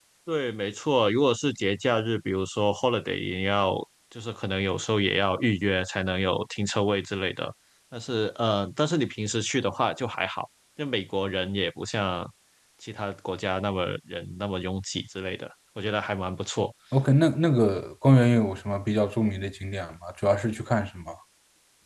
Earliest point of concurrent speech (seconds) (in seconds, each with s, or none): none